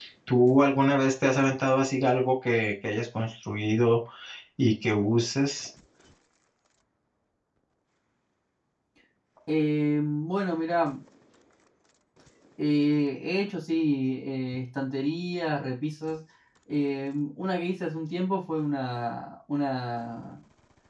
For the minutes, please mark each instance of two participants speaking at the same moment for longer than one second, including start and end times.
none

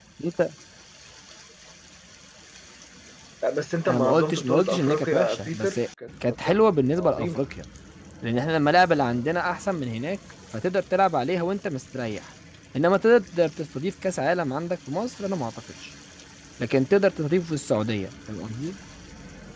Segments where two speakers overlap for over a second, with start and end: 3.9-5.8

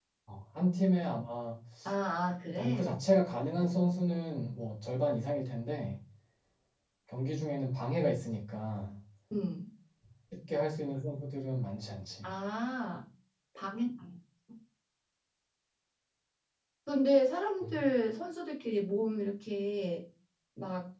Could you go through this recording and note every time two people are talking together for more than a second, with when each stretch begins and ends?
none

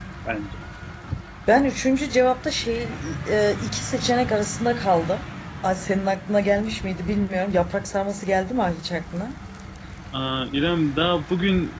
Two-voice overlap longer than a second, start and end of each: none

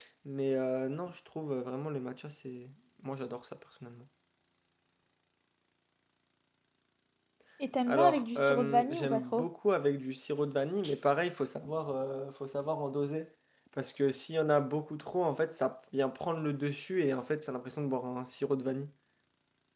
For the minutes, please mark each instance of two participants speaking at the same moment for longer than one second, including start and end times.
7.9-9.5

